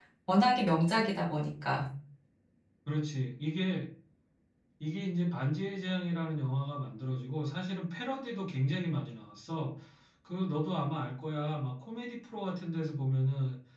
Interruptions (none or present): none